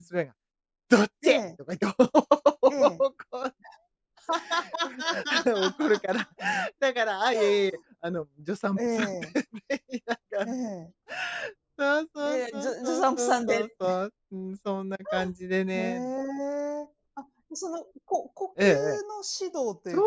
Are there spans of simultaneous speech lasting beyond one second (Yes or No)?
Yes